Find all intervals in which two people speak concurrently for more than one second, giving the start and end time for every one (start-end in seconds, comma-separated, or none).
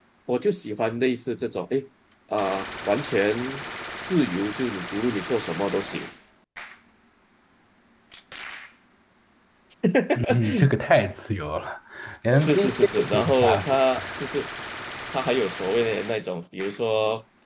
12.3-13.8